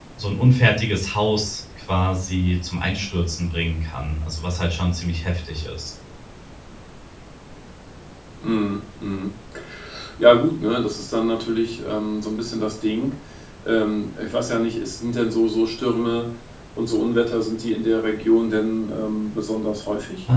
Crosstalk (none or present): none